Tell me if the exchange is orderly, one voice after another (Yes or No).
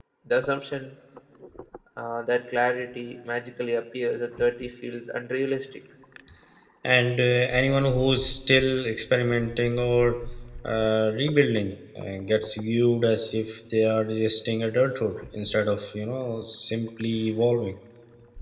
Yes